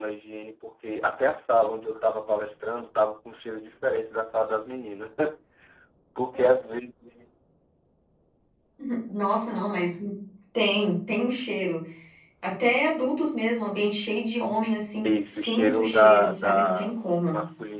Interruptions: present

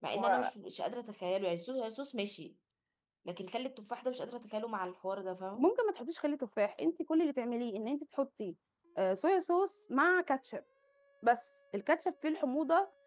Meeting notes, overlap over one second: none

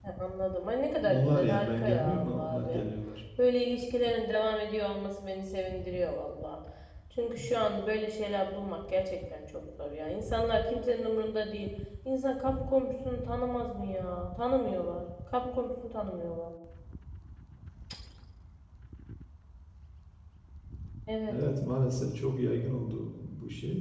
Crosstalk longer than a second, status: present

